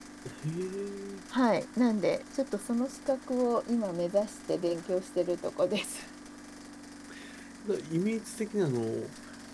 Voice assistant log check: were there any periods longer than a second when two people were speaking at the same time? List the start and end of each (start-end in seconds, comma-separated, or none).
none